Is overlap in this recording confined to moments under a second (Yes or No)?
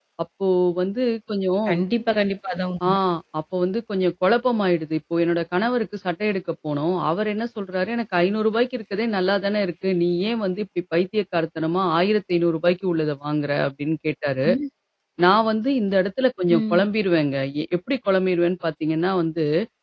Yes